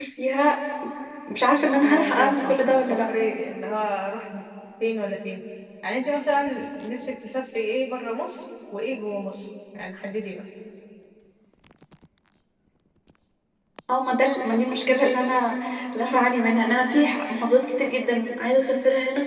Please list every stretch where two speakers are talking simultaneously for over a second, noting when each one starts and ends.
1.8-3.1

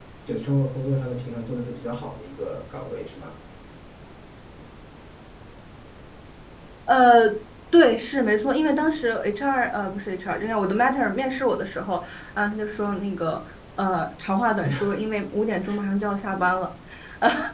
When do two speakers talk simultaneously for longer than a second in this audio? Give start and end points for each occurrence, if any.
none

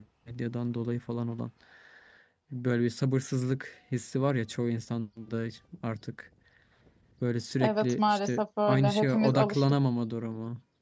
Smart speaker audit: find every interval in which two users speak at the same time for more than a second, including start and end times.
7.6-9.6

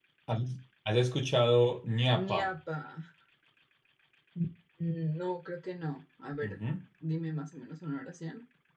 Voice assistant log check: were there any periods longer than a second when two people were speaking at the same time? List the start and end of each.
none

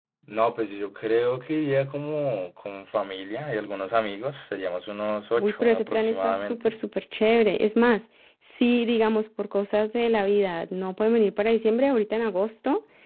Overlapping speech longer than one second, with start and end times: 5.4-6.7

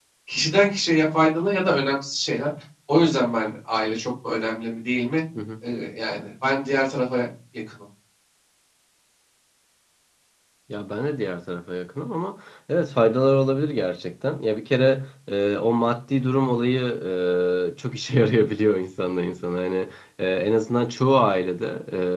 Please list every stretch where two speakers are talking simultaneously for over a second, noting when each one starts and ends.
none

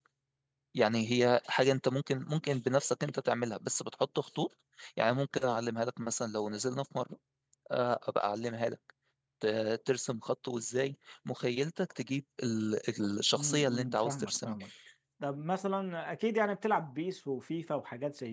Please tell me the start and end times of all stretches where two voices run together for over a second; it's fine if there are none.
13.3-14.6

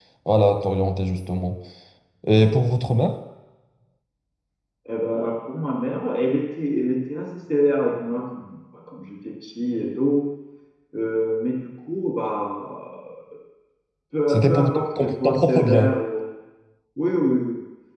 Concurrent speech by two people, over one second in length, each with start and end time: 14.3-16.0

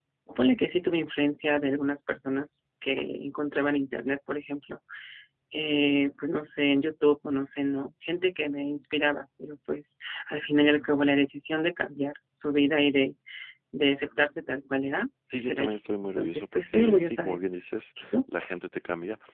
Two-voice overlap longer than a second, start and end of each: 15.4-17.5

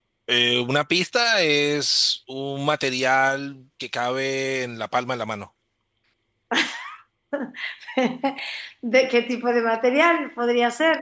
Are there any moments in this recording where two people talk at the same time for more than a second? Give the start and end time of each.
none

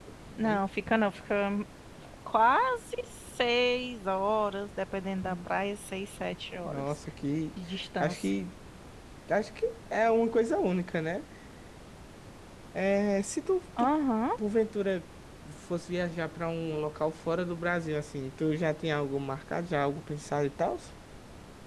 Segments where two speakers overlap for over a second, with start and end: none

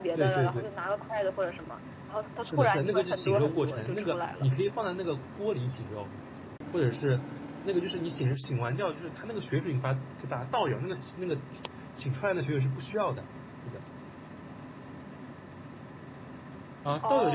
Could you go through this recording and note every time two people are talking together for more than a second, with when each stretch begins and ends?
2.4-4.5

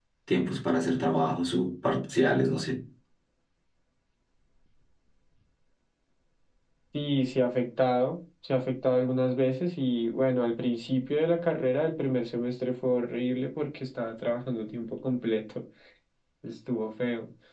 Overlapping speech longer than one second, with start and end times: none

